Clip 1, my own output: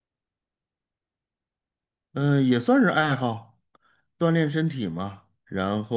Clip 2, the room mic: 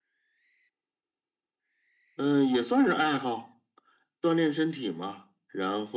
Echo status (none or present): present